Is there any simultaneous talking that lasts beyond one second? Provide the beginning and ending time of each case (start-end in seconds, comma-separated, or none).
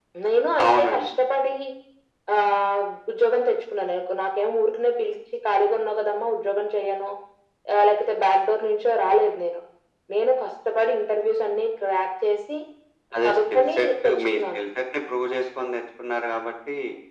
13.2-14.6